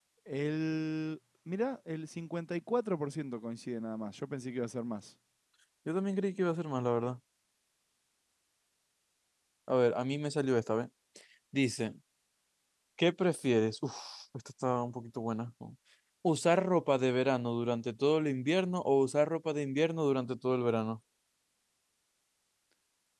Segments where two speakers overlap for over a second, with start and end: none

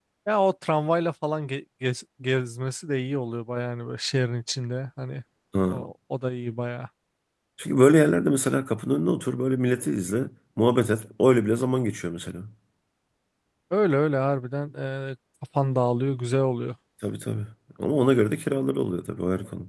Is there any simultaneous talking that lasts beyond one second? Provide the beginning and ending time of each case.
none

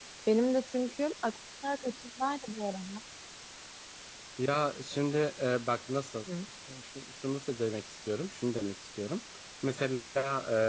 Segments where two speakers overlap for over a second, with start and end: none

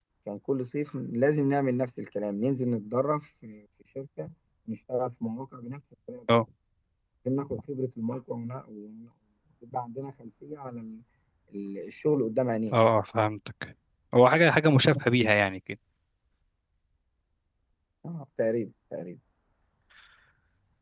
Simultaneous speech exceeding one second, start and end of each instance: none

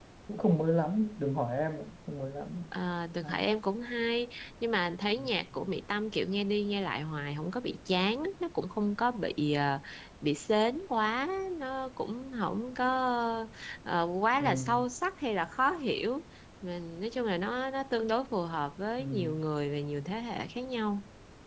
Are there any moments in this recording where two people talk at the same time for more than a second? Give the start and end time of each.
none

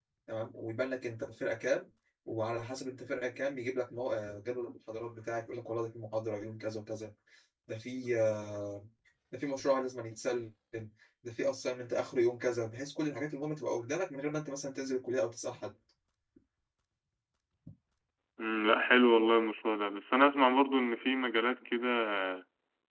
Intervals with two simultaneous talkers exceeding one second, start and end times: none

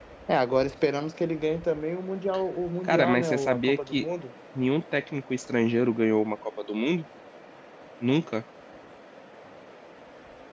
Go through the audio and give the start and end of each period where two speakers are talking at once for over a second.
2.8-4.0

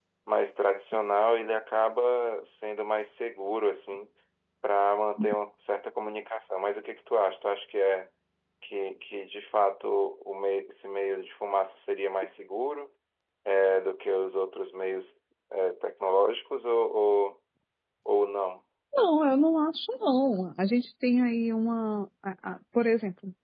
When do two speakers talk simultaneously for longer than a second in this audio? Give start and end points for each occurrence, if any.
none

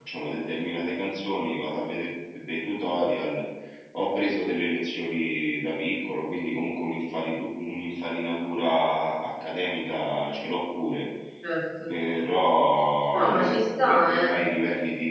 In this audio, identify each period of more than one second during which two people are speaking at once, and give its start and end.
13.1-14.4

